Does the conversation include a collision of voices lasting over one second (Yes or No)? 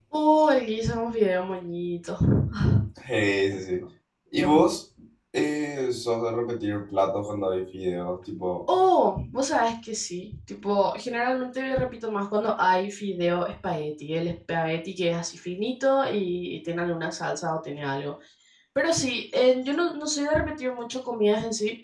No